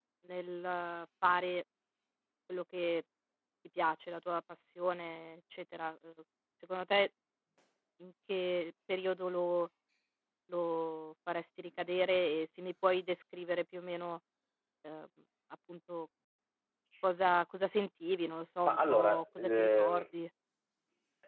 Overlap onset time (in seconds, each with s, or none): 18.6 s